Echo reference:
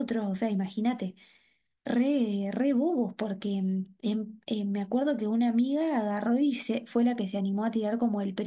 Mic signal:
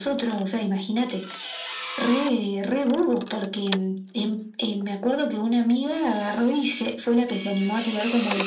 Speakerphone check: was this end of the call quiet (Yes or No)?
Yes